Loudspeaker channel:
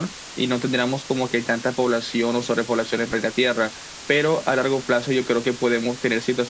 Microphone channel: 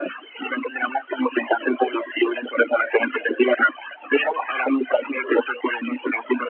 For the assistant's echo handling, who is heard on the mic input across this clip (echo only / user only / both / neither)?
echo only